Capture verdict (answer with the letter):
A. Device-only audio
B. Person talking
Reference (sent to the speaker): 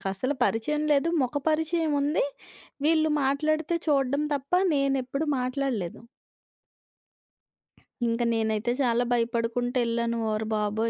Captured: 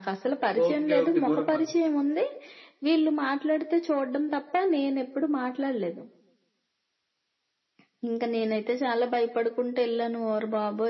B